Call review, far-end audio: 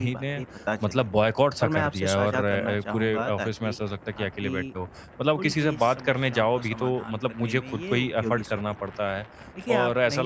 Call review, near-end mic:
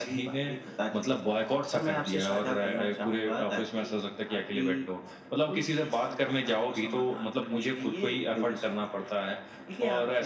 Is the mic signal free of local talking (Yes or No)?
Yes